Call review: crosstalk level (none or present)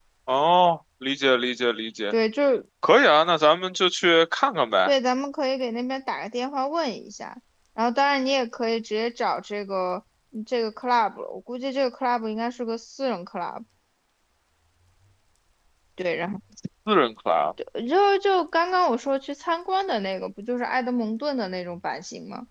none